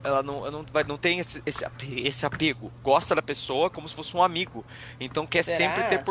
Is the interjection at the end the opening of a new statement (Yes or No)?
No